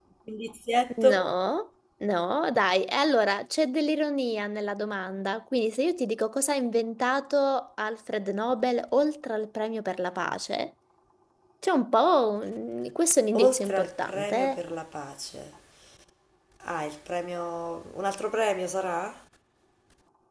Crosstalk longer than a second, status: present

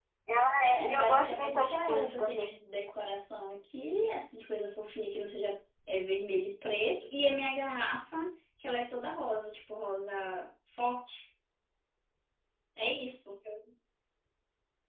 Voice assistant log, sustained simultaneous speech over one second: present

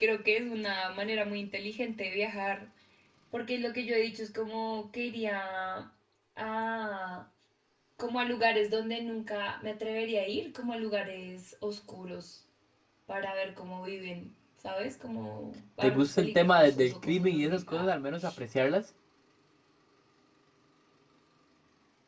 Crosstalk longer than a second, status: present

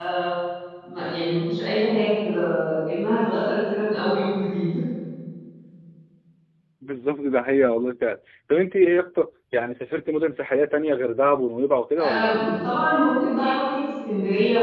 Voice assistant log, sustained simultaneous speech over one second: none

